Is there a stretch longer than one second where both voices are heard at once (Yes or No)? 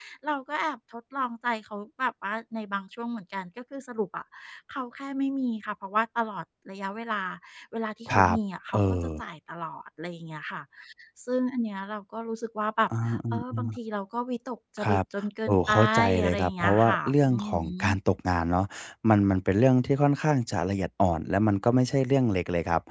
Yes